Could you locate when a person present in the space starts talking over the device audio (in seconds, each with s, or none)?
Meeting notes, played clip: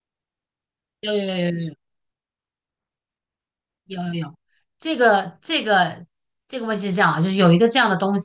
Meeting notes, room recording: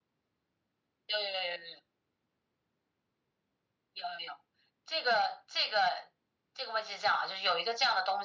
none